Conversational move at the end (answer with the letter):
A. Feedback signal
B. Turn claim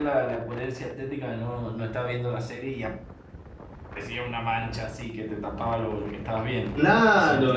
B